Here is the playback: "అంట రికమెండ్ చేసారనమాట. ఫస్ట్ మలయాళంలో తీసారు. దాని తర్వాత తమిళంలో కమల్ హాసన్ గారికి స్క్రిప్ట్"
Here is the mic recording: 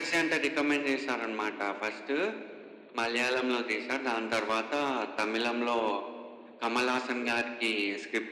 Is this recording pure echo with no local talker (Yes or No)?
Yes